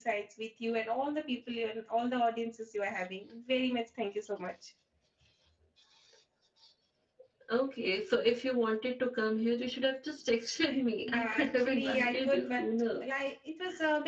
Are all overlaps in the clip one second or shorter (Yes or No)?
No